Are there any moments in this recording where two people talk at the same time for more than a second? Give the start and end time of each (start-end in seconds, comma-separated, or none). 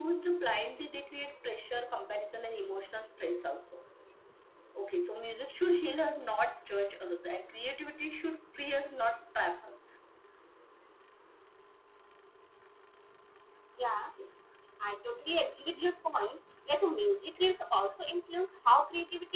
none